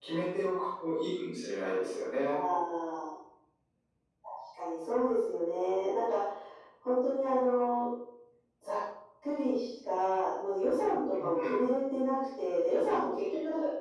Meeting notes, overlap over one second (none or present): none